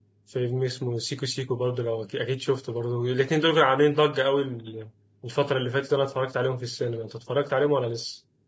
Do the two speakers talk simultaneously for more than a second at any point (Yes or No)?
No